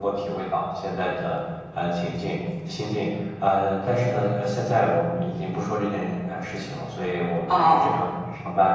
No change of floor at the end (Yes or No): Yes